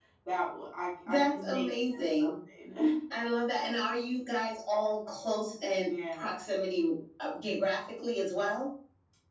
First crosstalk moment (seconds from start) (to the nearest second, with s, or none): 1 s